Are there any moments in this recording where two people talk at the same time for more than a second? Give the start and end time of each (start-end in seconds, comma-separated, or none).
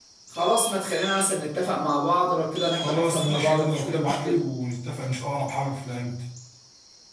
2.7-4.4